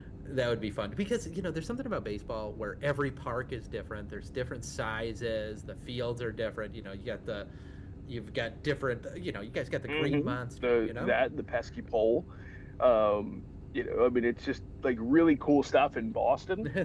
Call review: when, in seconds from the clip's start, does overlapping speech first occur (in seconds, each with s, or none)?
9.9 s